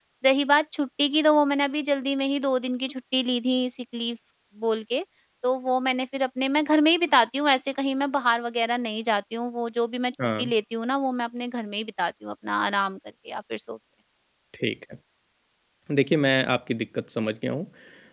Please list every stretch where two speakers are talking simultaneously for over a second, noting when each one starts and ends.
none

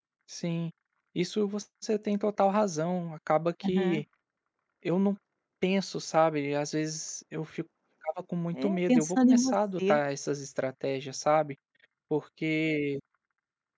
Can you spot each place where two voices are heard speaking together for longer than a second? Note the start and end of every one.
8.5-10.0

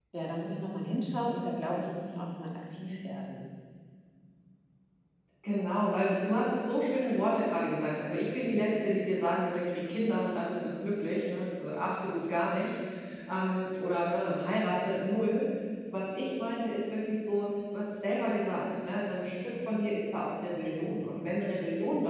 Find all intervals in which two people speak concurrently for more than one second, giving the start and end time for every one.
none

